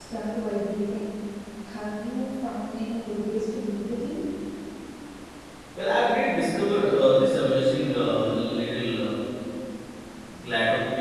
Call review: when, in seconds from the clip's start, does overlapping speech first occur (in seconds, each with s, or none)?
none